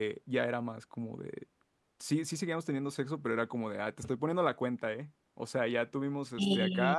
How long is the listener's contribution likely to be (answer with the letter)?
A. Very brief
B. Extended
A